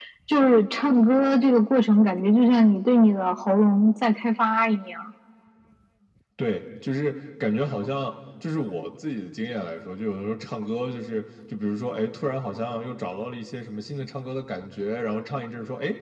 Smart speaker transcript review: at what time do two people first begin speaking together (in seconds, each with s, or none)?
none